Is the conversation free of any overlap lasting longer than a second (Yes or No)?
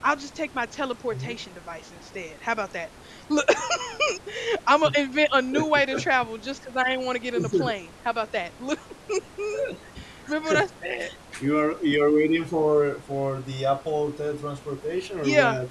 Yes